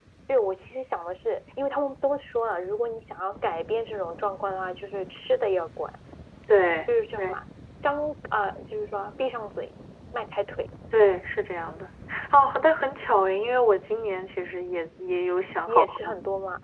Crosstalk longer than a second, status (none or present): none